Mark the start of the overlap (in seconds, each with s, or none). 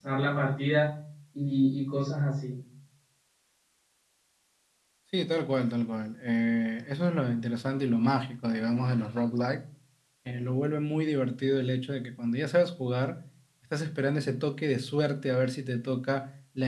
none